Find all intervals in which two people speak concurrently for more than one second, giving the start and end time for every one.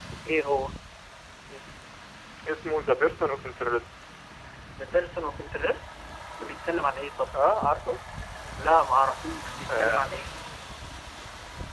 none

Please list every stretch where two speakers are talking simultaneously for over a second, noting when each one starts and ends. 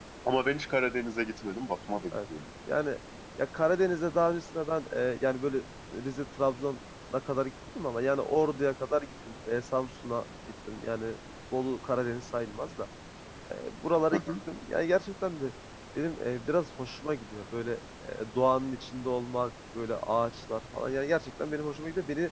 none

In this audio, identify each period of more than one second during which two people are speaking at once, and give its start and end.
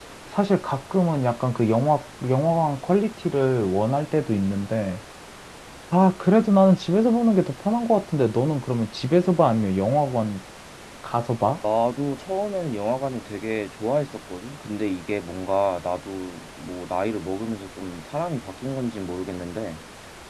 none

